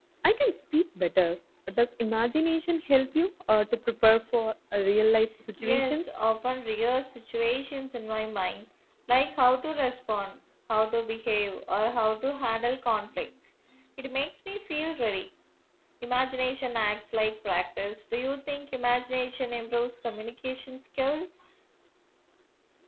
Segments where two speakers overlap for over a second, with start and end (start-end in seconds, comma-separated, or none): none